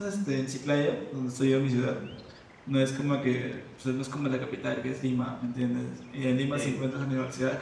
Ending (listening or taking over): listening